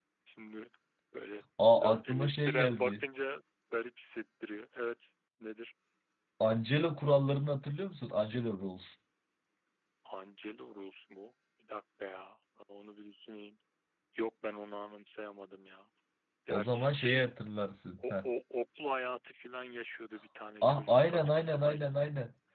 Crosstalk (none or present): present